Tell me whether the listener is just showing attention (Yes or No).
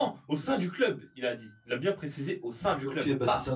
No